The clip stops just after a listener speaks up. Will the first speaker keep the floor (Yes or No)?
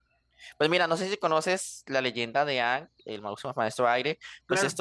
Yes